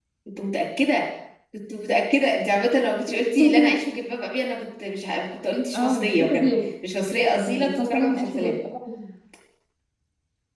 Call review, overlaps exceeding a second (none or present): present